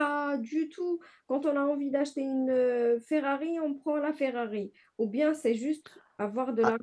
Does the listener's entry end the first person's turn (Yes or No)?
Yes